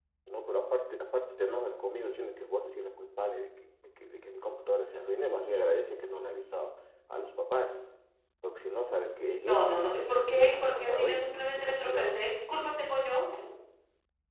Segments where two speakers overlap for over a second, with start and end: 10.3-12.2

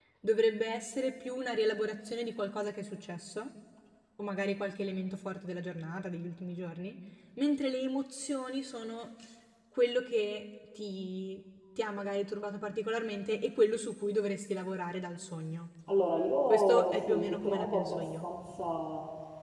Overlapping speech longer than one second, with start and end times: 16.5-18.2

